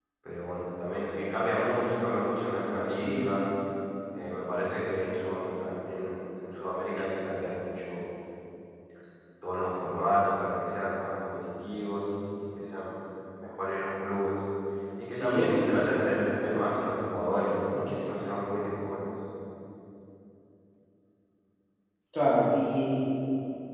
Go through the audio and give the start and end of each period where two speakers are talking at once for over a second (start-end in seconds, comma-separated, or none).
15.1-16.7